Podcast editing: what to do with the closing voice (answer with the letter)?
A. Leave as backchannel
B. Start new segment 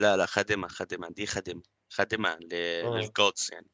A